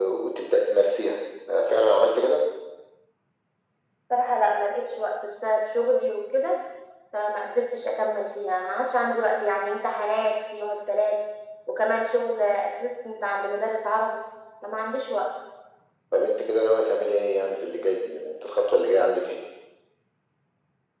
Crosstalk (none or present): none